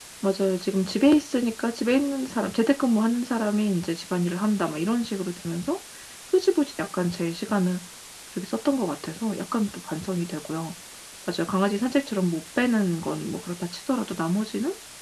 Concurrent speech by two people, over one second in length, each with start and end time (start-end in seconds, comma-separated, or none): none